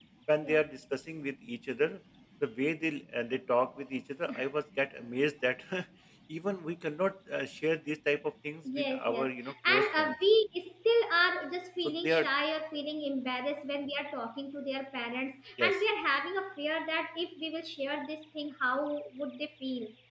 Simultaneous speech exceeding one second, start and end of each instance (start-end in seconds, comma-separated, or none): 8.8-10.2